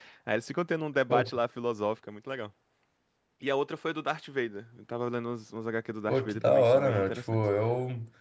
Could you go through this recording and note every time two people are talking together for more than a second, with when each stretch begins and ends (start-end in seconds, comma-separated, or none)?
6.1-7.4